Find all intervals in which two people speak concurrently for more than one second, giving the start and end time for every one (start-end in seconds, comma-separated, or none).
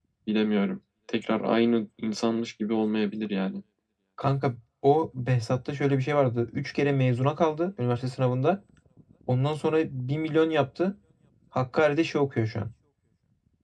none